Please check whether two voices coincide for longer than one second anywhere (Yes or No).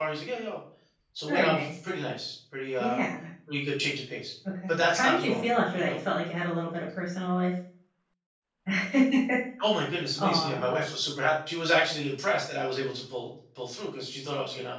Yes